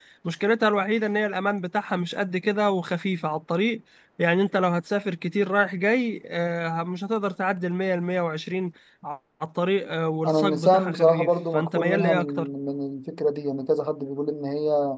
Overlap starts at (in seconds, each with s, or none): 10.2 s